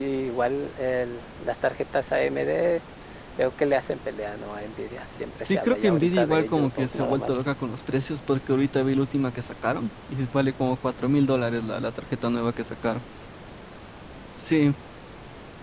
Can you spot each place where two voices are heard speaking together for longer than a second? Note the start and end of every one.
5.4-7.3

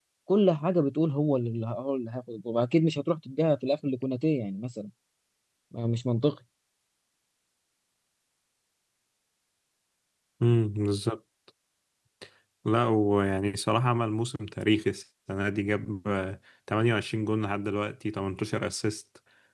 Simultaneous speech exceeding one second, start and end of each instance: none

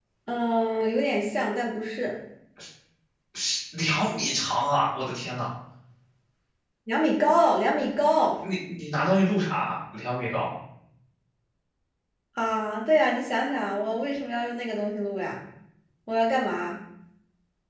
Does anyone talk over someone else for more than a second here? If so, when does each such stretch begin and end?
none

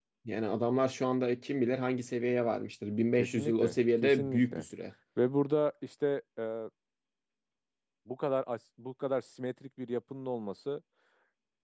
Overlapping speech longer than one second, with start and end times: 3.2-4.7

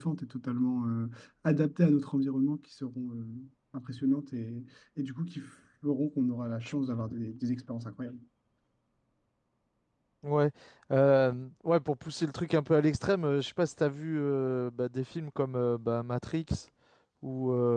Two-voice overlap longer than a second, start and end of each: none

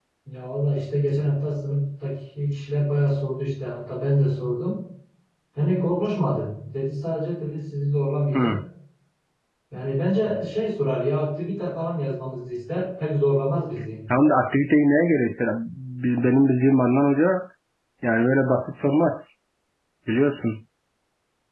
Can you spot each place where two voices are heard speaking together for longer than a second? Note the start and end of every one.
none

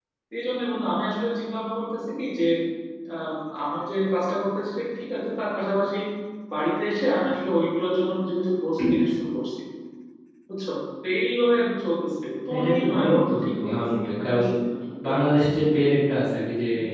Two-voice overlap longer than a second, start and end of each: 12.5-14.4

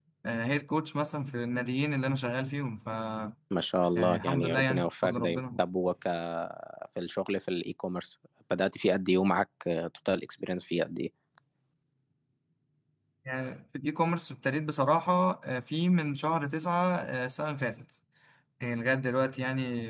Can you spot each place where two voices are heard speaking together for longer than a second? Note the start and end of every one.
4.0-5.4

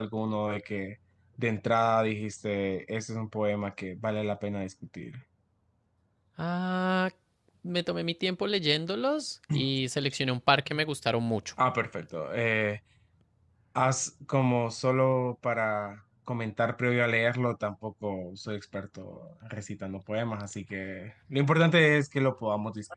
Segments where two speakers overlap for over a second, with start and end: none

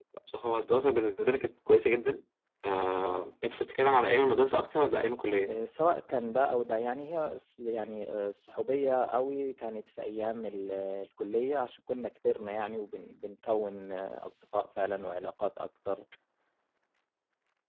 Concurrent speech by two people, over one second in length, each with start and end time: none

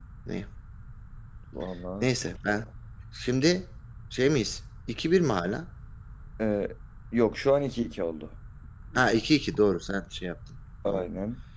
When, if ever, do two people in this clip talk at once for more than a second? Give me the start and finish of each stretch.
none

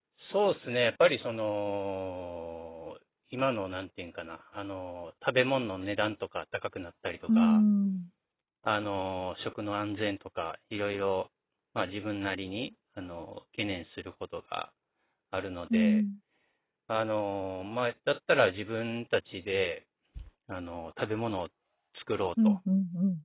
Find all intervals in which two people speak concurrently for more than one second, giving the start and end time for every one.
none

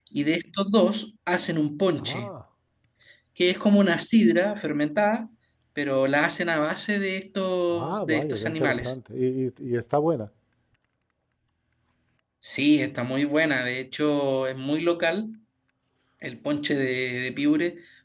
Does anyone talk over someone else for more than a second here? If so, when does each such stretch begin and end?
7.7-8.9

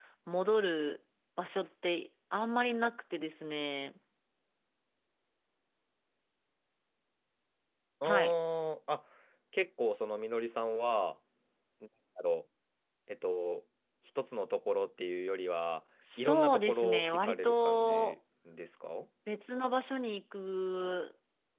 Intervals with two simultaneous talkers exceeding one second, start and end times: 16.2-18.1

